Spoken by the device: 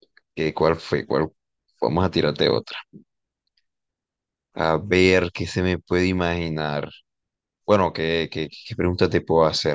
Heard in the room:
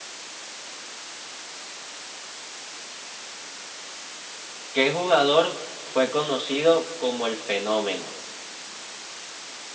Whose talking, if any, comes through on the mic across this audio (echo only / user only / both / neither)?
user only